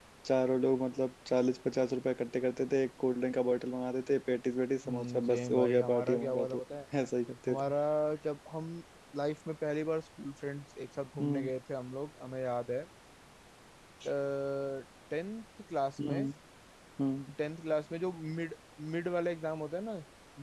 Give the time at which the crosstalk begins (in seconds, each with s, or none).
4.9 s